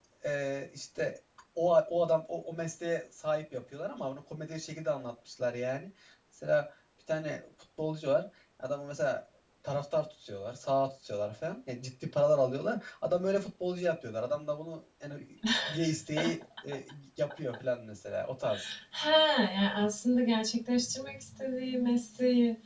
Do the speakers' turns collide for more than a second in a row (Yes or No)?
No